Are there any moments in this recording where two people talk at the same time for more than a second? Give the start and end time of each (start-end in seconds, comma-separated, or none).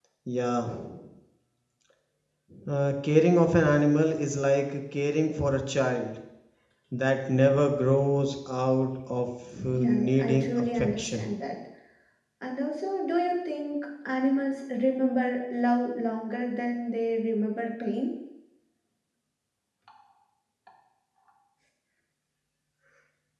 9.6-11.3